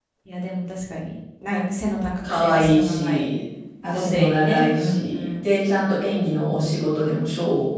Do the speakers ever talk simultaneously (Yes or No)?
Yes